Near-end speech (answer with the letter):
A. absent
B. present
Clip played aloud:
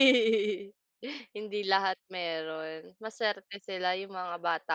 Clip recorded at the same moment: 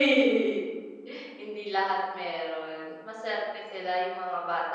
A